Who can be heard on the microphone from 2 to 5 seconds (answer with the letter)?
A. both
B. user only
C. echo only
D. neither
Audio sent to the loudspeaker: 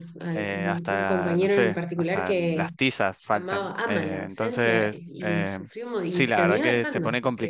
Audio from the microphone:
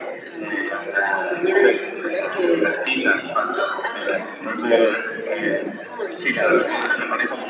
C